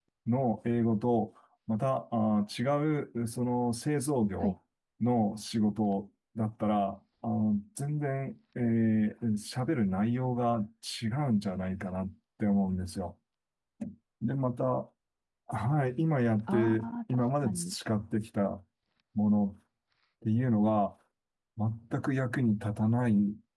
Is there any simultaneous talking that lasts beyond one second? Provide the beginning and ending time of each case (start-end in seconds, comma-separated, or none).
16.5-17.7